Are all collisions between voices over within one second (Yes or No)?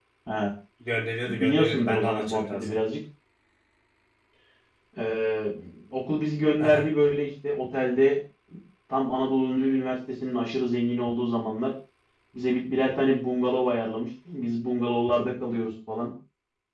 No